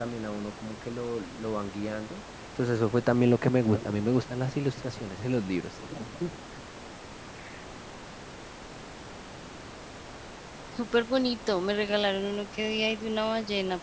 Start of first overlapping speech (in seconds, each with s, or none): none